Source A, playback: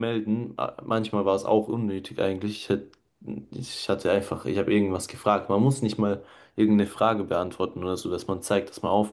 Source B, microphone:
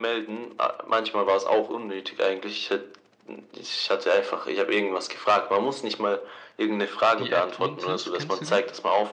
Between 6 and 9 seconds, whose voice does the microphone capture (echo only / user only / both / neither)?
both